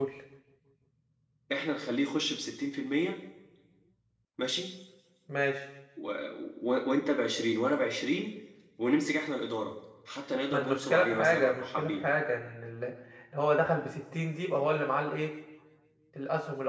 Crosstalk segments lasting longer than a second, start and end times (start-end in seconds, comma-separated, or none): 10.5-12.0